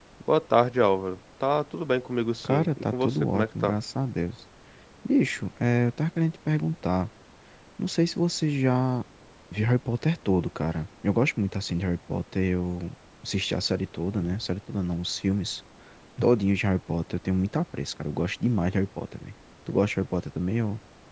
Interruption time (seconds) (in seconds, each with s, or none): 2.4 s